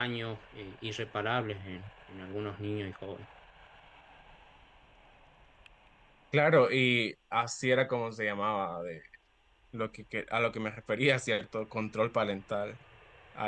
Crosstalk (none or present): none